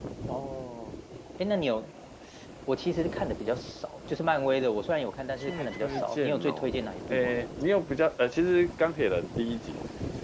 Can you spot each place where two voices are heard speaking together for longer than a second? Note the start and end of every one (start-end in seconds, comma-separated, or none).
5.4-7.4